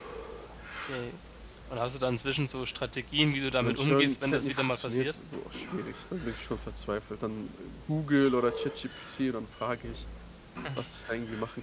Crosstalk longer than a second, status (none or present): present